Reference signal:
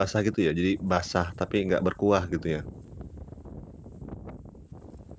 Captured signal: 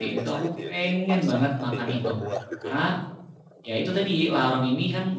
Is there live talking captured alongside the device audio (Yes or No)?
Yes